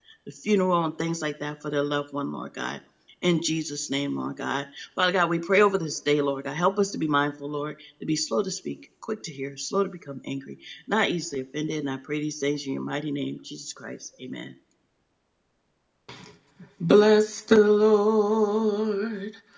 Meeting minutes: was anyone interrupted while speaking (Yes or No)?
No